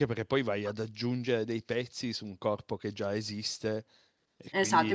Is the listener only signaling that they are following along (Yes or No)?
No